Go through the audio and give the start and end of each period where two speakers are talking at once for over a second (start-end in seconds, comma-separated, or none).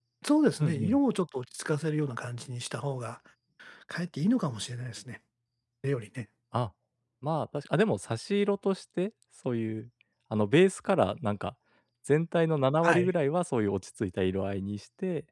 none